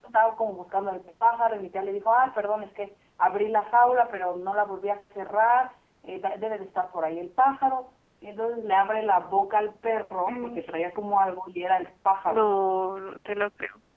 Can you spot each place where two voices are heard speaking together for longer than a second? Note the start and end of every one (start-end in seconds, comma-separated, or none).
none